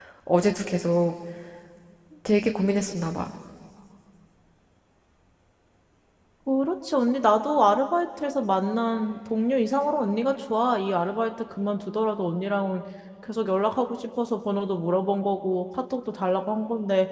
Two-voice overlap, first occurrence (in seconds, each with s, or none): none